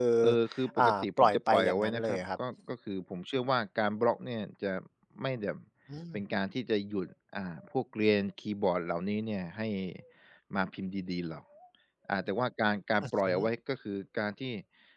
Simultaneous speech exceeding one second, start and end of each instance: 0.8-2.2

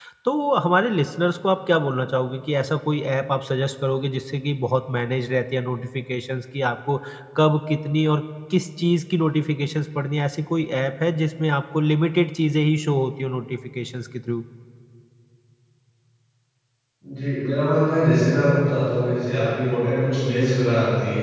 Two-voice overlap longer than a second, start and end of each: none

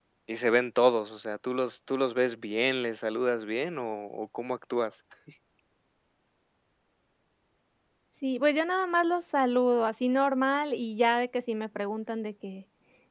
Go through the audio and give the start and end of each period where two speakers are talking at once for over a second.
none

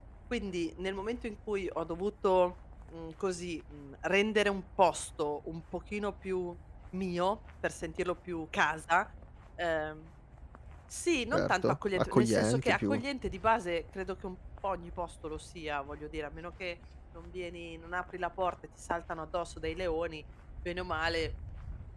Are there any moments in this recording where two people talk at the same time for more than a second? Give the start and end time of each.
11.3-13.0

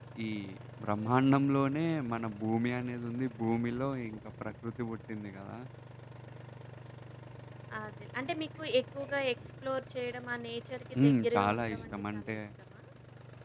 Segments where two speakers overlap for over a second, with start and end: 11.0-12.4

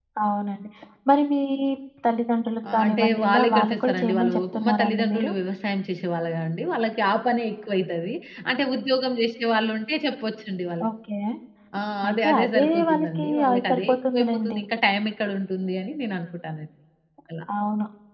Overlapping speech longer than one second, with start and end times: 2.7-5.3, 12.1-14.6

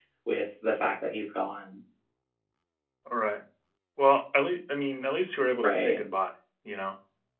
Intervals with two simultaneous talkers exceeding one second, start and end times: none

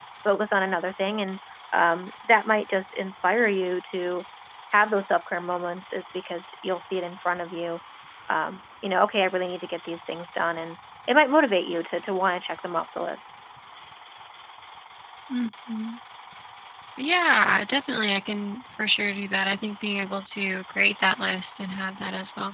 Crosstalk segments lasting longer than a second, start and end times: none

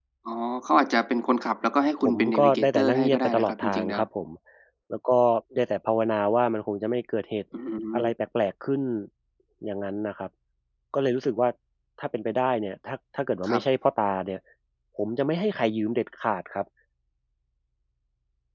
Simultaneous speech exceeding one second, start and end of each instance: 2.0-4.0

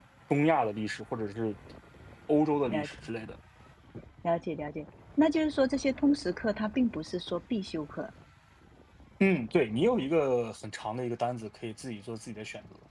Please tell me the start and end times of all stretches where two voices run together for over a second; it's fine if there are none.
none

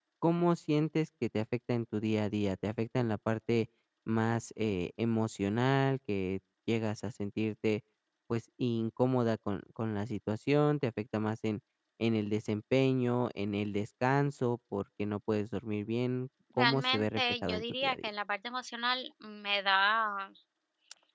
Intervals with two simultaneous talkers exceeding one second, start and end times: 16.6-18.1

